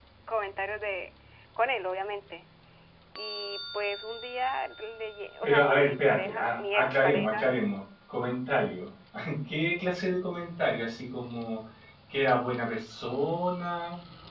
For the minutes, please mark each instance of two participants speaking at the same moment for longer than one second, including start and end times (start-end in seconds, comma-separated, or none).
5.4-7.5